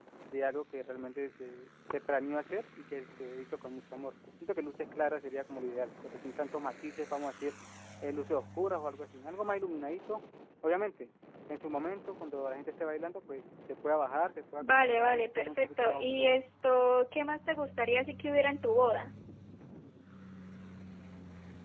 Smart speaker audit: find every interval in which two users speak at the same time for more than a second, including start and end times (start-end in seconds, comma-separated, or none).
14.6-16.4